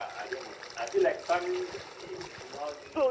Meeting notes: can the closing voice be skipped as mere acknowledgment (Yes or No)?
No